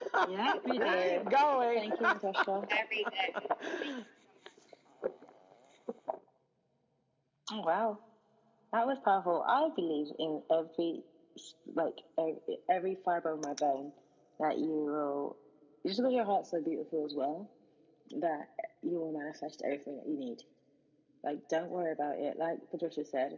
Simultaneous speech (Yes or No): Yes